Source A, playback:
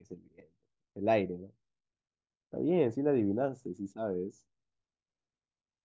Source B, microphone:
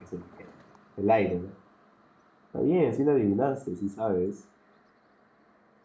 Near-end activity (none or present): none